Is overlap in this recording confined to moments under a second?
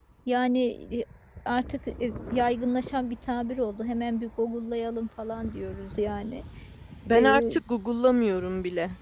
Yes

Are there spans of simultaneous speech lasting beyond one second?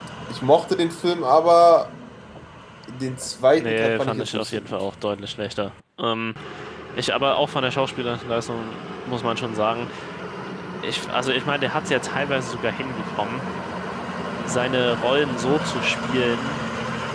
Yes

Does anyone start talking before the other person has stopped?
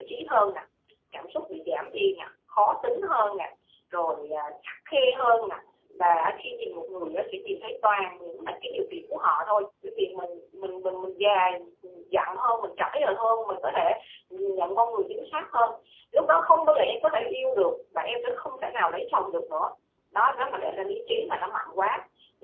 No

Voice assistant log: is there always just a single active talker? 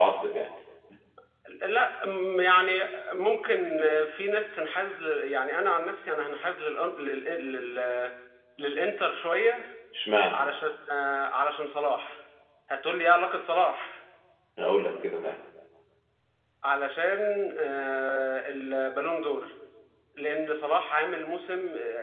Yes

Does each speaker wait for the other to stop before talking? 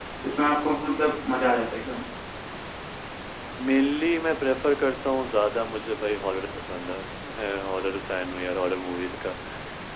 Yes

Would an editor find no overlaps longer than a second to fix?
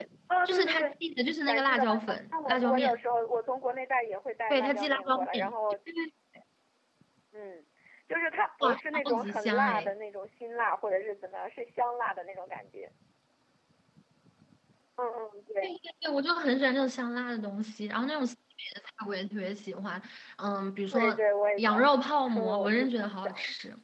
No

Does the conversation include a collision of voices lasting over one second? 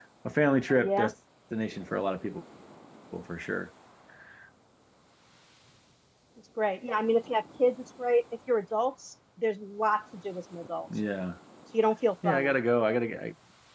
No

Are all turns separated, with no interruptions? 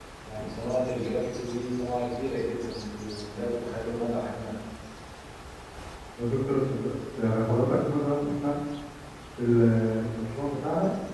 Yes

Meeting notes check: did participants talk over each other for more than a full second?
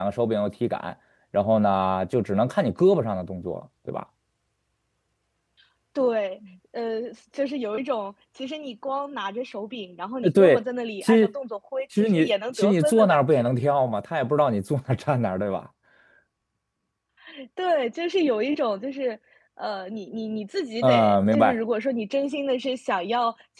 Yes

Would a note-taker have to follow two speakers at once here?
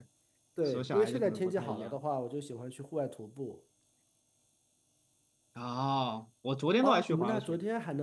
Yes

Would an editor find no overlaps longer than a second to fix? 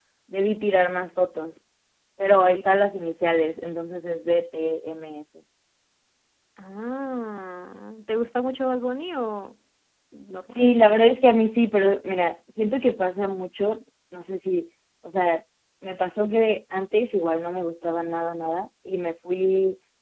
Yes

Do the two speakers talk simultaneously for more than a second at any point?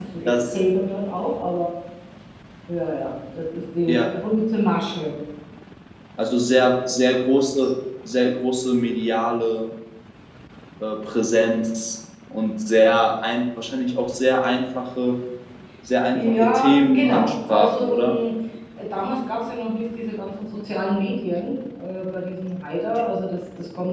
Yes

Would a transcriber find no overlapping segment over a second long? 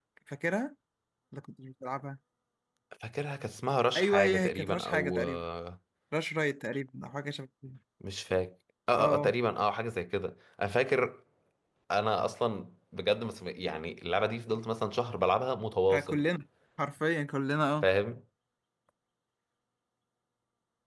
No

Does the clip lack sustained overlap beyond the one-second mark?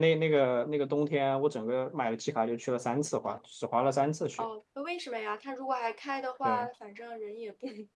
Yes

